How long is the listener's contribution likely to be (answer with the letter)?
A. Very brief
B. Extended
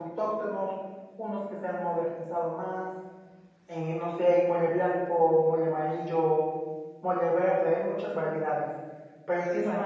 A